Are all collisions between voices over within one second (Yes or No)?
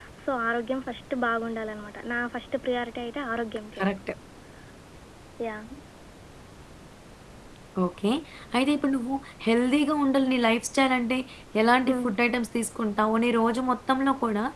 Yes